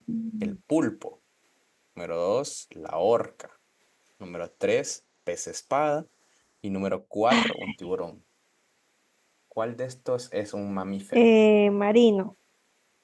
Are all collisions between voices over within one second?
Yes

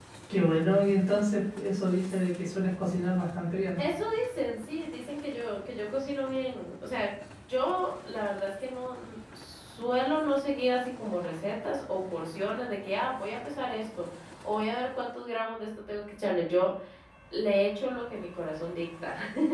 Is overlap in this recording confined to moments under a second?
Yes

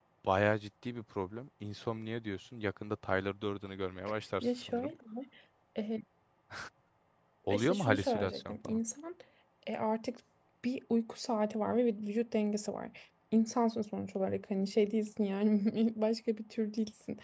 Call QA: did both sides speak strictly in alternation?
No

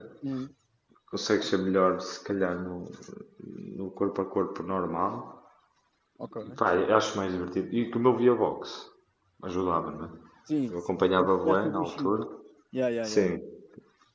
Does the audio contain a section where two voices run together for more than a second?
Yes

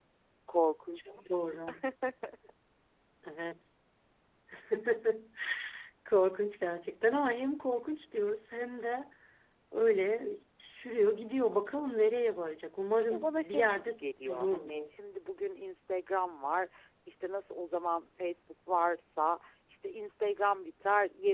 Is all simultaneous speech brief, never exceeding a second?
No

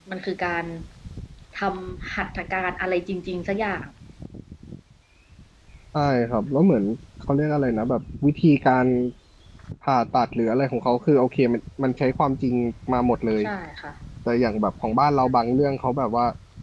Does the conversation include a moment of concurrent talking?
No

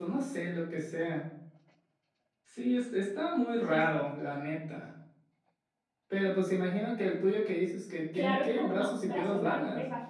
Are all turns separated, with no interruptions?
No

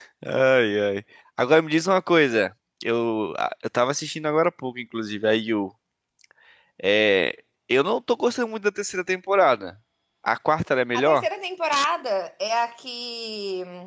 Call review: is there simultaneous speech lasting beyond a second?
No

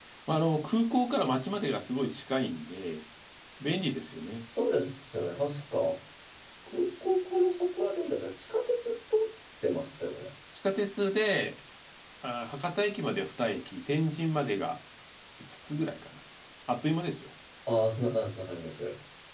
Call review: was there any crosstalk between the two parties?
No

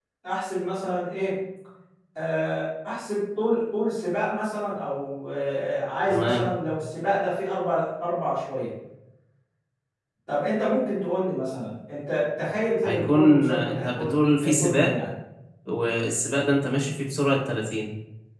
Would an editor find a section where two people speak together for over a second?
Yes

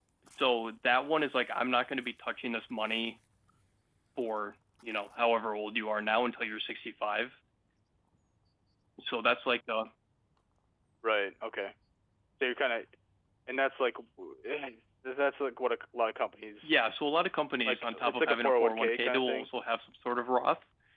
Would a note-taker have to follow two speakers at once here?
Yes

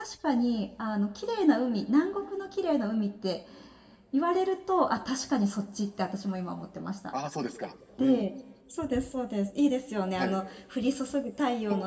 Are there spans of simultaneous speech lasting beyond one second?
No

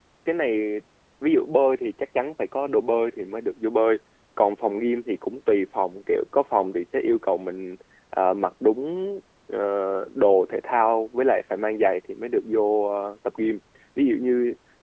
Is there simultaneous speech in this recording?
No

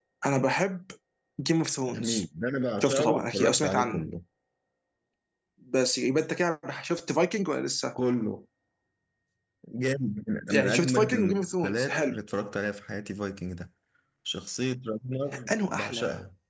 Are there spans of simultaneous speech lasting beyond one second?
Yes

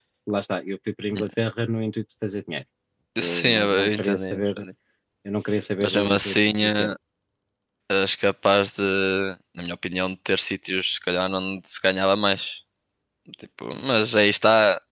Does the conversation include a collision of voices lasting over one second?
Yes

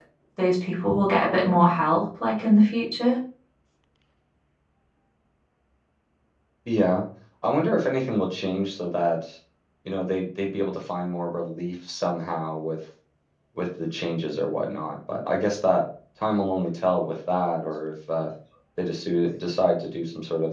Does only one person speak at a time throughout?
Yes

